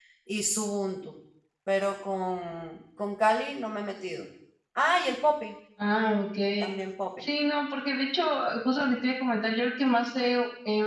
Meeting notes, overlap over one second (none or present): none